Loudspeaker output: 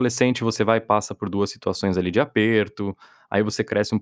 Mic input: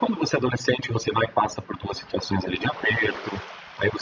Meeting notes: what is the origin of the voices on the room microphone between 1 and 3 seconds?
echo only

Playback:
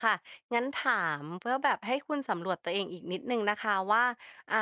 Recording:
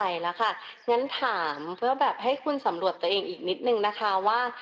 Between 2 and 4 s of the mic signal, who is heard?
echo only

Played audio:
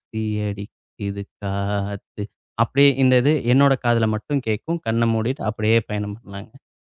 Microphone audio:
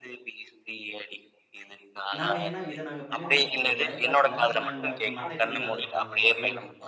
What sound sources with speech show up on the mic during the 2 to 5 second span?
both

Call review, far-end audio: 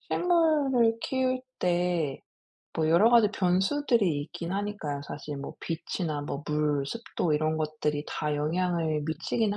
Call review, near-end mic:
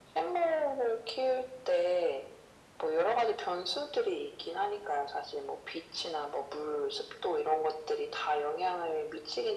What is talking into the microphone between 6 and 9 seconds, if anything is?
echo only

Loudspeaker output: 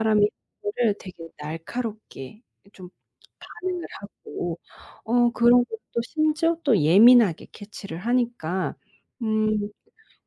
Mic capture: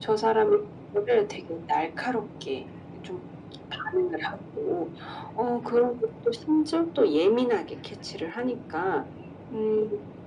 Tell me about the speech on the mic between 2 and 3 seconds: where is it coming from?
echo only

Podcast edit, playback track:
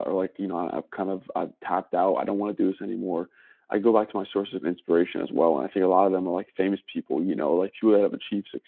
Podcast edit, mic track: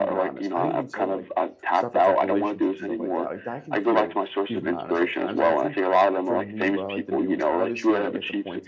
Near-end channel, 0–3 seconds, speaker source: both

